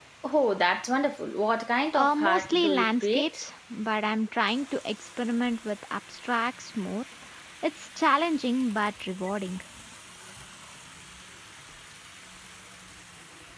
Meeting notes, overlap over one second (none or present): present